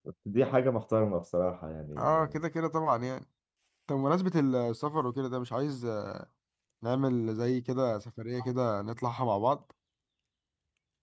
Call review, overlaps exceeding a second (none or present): none